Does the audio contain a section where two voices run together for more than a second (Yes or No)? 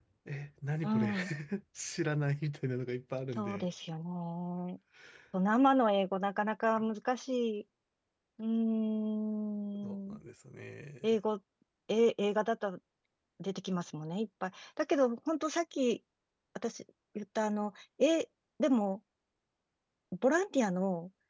No